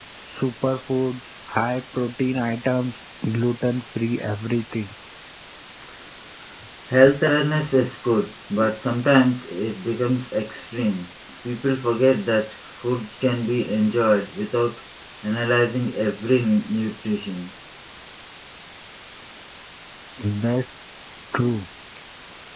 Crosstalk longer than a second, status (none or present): none